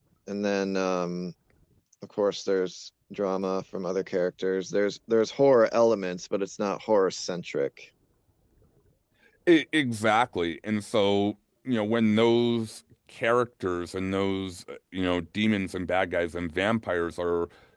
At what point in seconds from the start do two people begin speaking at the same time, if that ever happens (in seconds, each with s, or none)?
none